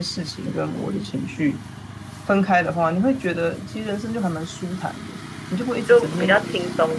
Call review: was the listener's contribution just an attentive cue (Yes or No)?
No